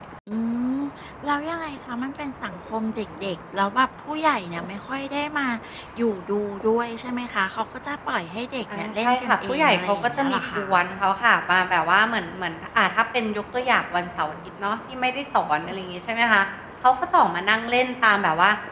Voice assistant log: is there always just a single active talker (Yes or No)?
No